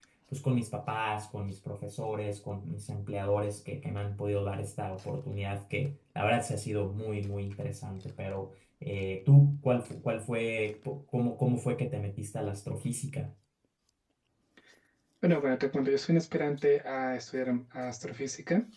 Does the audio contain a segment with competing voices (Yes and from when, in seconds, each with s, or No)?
No